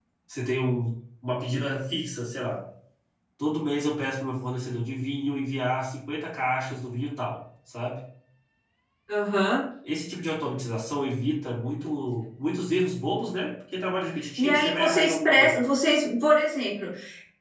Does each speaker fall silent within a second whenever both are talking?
No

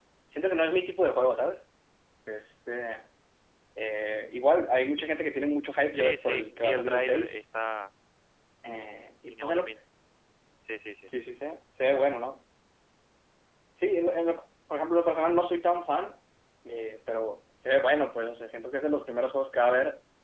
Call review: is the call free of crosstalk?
No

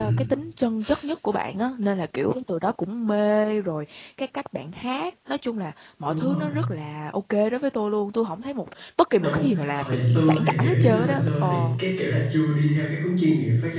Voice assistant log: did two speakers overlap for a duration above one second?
Yes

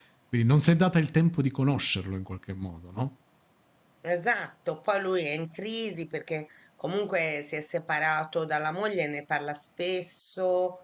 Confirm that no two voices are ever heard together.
Yes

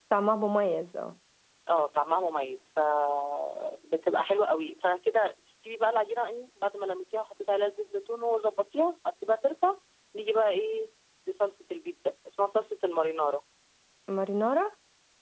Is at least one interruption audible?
No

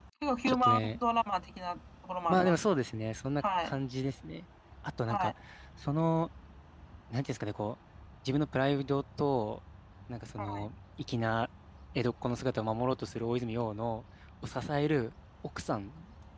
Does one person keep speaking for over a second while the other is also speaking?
No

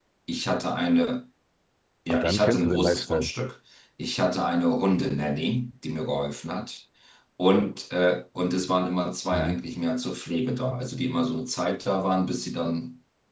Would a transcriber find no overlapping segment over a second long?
No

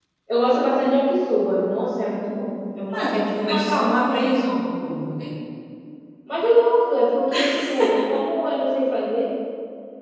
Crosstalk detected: Yes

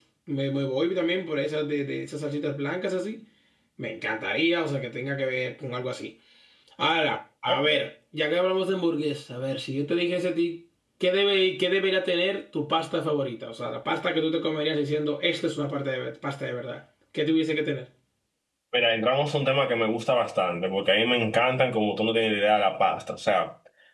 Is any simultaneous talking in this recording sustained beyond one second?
No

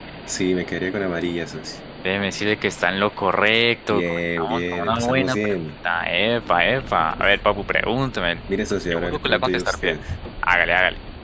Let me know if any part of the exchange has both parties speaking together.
Yes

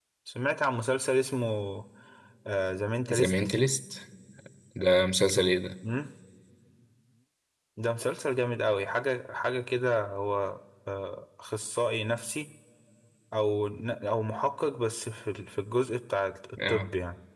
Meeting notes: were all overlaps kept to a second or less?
Yes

